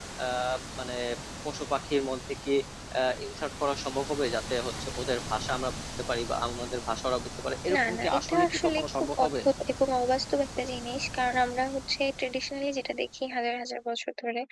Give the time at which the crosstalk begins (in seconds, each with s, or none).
7.7 s